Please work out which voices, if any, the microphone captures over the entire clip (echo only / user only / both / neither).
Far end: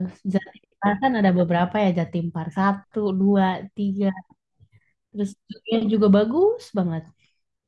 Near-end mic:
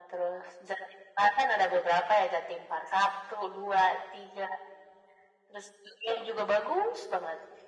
echo only